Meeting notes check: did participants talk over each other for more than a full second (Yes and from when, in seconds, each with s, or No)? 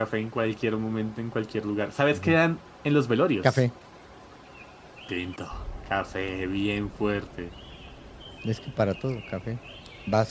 No